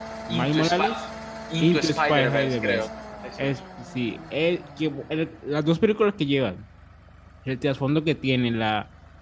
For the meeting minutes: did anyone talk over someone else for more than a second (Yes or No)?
Yes